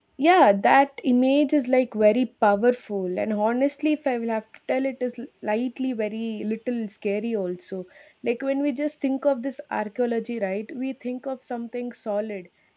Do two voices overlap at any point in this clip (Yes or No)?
No